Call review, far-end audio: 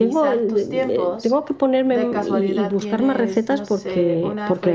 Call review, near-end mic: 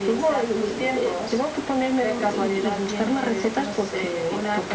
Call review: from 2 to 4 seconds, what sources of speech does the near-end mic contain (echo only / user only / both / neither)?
echo only